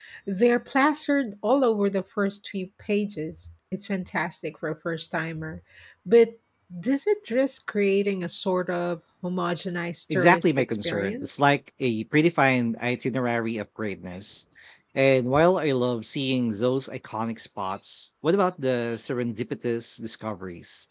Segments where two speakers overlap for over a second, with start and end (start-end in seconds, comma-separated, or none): 10.1-11.4